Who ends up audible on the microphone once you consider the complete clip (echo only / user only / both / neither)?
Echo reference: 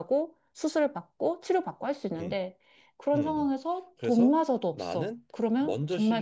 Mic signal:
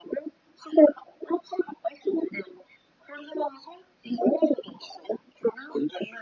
echo only